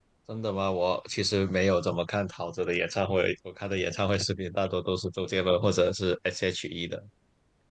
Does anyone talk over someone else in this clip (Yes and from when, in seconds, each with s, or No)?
No